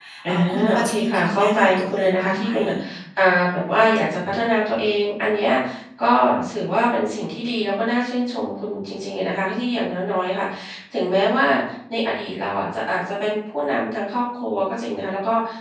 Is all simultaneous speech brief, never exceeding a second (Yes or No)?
No